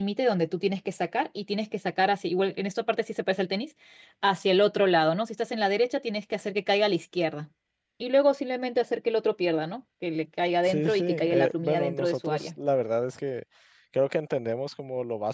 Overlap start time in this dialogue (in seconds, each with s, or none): 10.6 s